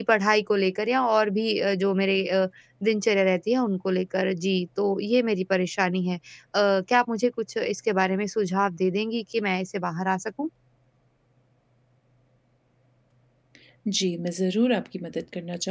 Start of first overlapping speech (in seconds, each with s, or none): none